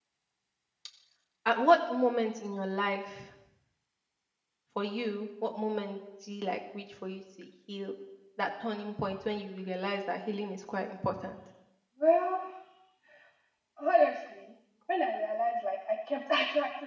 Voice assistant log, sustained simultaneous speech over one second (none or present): none